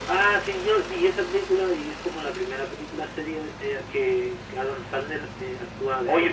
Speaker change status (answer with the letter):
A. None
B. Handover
B